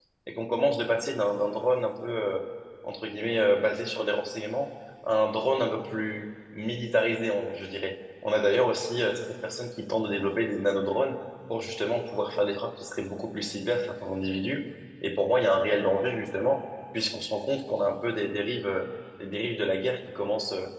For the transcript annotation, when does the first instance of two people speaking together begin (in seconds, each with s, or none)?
none